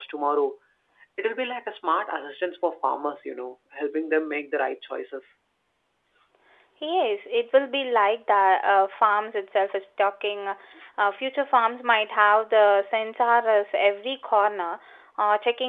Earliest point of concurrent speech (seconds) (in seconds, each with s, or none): none